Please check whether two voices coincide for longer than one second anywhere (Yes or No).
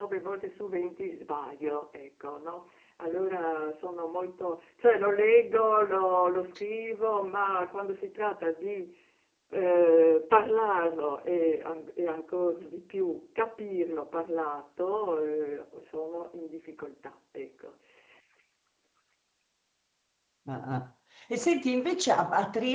No